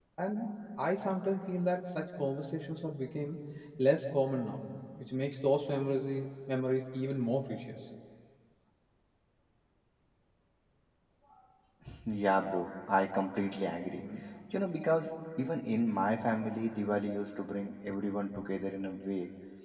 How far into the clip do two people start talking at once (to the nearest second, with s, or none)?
none